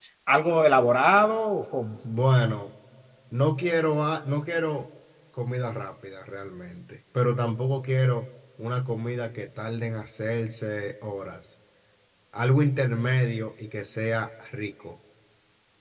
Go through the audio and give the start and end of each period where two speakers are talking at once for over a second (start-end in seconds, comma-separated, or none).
none